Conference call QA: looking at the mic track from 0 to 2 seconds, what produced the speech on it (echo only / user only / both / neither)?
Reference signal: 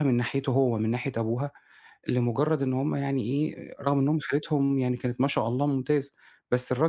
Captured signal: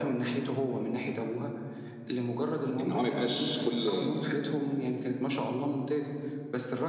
echo only